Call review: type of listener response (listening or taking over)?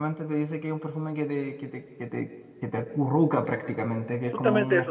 taking over